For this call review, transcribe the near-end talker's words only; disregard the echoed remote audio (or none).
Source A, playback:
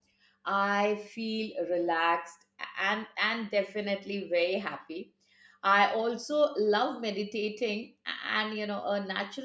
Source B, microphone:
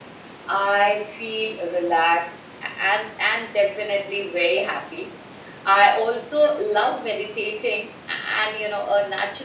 none